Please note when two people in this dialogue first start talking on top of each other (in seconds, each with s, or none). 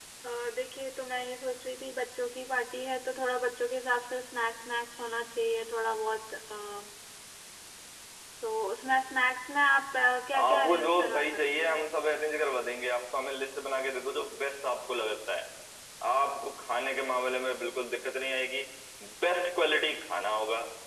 10.3 s